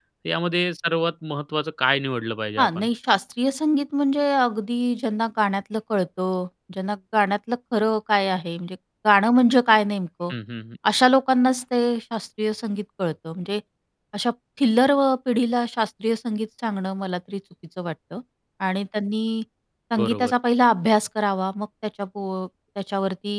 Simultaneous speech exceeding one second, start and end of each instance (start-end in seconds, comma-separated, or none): none